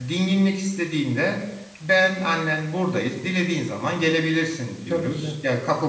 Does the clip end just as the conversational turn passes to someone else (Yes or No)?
No